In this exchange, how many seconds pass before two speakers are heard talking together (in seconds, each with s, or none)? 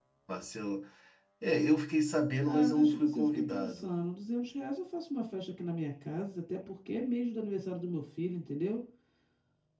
2.4 s